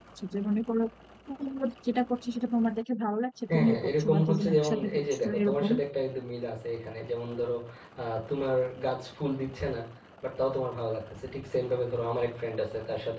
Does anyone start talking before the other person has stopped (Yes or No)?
Yes